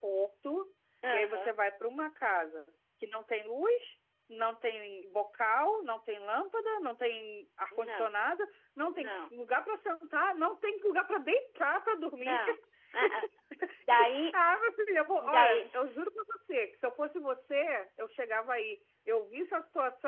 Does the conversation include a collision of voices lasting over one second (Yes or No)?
No